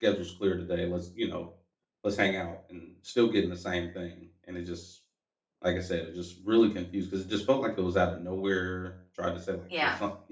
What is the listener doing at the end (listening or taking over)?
listening